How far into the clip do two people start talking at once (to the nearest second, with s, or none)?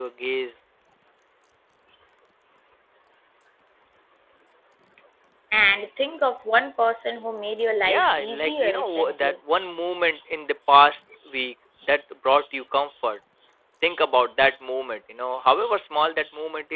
8 s